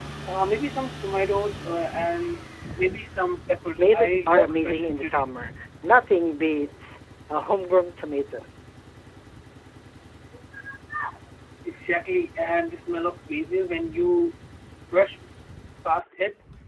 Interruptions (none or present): present